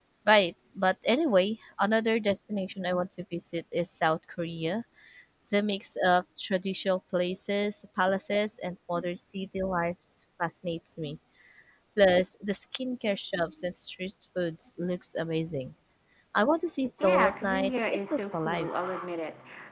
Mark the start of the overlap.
17 s

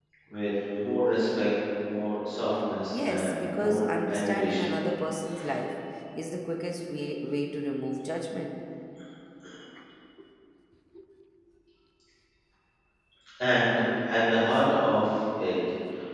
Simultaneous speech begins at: 3 s

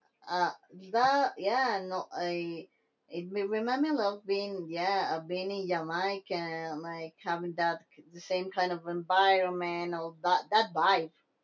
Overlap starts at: none

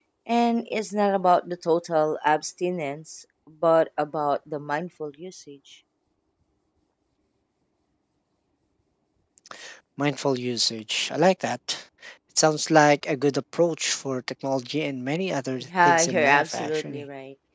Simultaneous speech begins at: 16 s

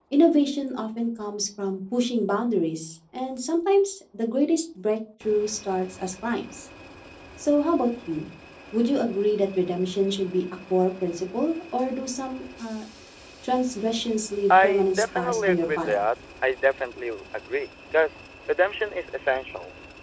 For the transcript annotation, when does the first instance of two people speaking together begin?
15 s

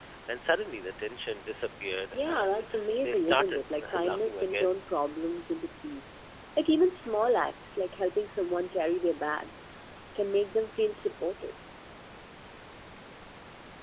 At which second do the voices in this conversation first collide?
2 s

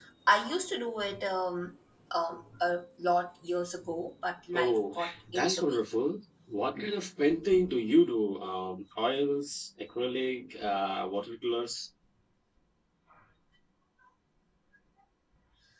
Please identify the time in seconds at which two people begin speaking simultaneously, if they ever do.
5 s

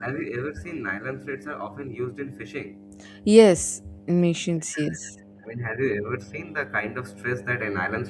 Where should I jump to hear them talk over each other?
none

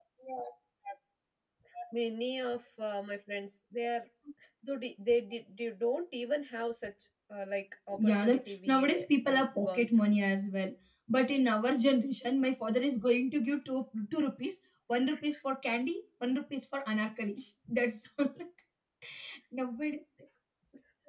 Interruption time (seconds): 8 s

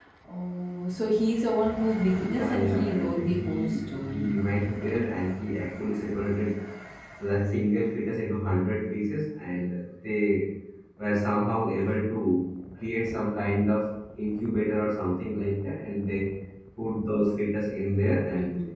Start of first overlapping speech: 2 s

